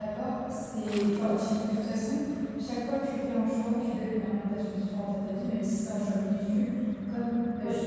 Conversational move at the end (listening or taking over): listening